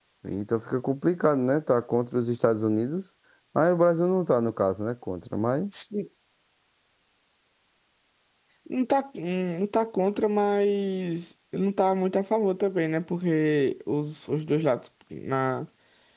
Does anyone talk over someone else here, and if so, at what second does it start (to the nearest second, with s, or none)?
none